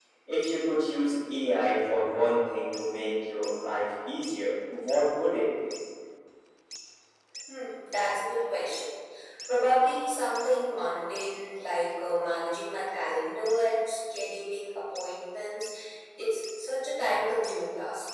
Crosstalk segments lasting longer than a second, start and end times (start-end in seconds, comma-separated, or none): none